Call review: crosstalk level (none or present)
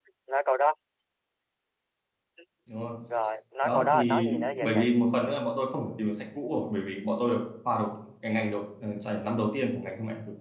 present